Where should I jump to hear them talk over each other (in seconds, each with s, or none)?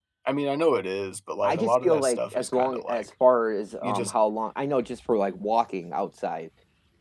1.4 s